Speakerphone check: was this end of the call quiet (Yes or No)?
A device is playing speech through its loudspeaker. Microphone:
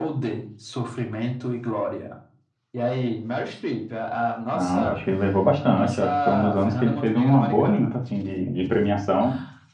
No